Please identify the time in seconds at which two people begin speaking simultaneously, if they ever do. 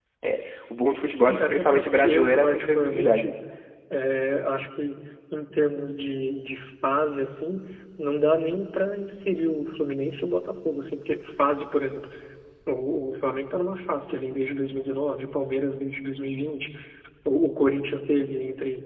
1 s

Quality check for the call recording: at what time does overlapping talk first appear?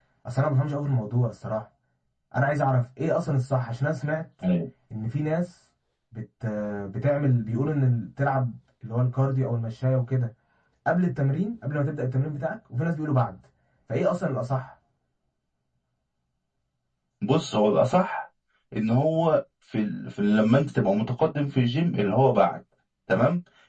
none

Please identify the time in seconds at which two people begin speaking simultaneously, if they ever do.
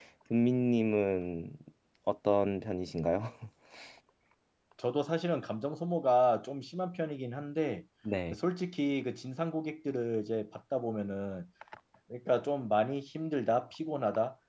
none

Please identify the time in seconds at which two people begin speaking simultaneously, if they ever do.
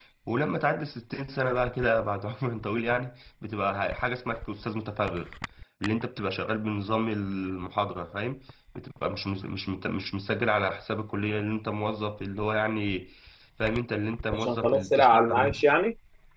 14 s

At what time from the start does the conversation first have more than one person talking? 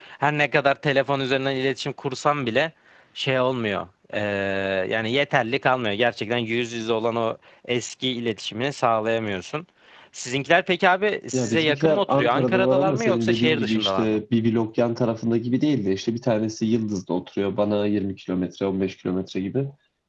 11 s

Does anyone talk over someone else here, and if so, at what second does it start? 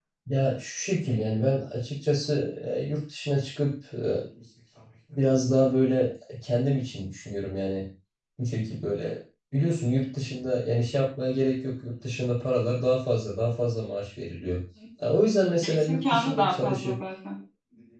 16 s

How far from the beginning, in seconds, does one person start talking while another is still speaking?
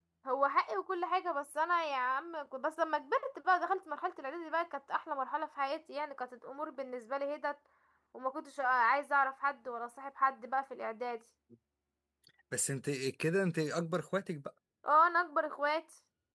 none

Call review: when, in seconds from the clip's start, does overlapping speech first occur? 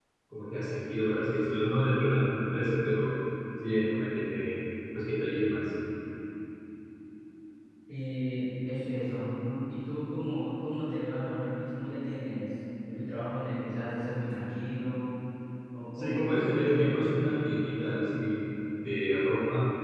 16 s

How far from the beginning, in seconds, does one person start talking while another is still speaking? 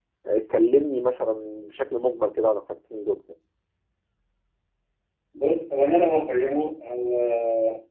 none

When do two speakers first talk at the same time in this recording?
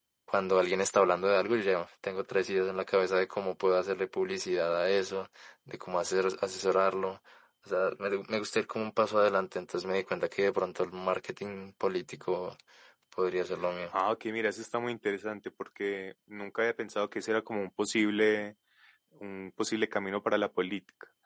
none

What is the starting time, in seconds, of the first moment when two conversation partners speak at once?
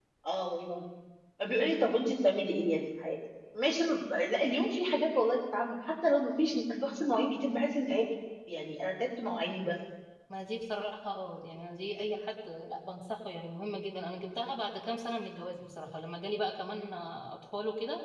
none

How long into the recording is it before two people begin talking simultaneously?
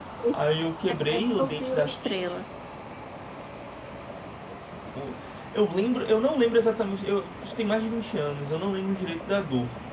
1 s

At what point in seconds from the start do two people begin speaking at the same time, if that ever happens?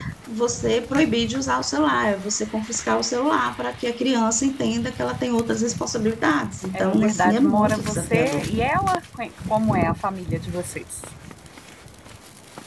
7 s

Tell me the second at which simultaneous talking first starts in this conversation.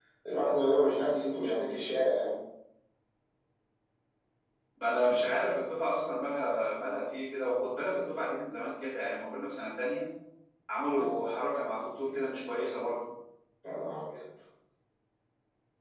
none

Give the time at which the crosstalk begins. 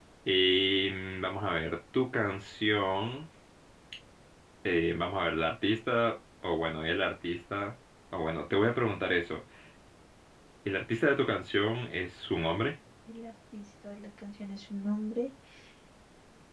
none

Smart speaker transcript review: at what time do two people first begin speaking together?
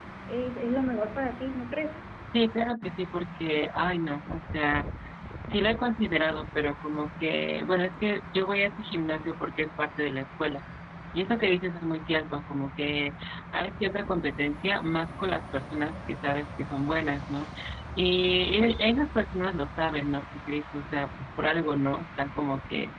none

